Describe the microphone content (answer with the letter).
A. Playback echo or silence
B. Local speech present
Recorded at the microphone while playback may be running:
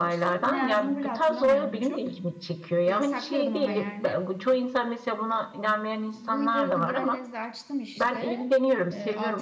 B